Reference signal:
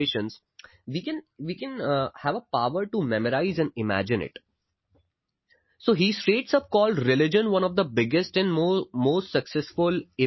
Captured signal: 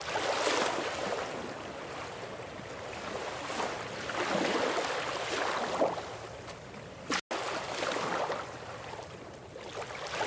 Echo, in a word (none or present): none